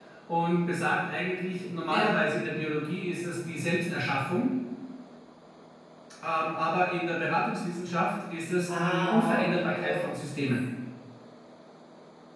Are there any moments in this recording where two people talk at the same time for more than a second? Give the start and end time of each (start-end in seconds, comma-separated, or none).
8.7-10.4